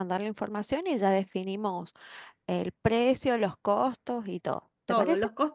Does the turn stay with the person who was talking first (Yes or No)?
No